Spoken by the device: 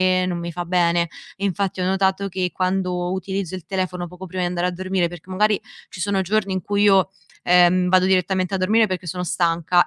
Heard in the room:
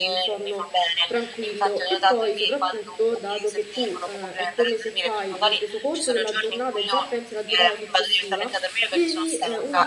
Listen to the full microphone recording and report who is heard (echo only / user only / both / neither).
both